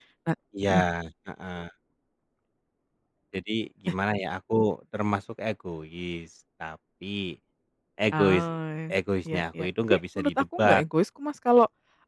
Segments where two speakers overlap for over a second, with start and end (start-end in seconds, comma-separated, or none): 9.3-10.8